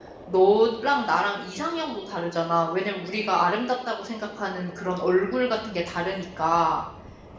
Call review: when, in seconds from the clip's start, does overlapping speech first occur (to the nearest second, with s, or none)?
none